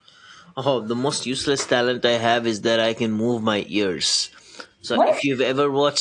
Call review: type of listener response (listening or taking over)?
listening